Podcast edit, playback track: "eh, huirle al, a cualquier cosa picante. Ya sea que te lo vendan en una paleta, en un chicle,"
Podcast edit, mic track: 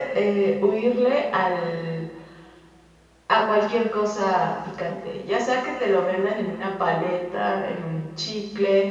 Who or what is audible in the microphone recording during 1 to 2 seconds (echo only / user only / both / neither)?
echo only